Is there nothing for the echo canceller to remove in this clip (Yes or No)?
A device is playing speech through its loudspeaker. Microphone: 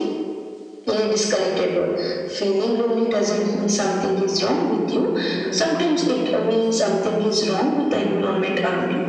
No